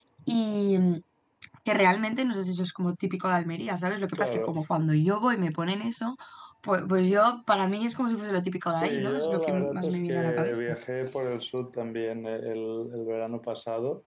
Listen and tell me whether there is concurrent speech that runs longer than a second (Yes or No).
Yes